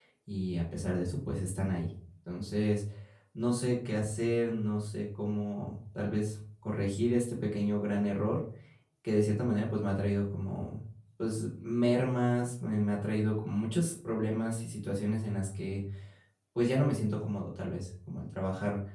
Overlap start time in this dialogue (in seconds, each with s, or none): none